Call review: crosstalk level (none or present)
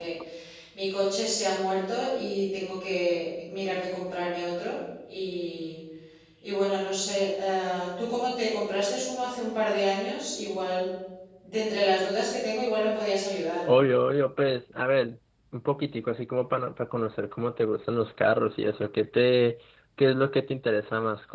none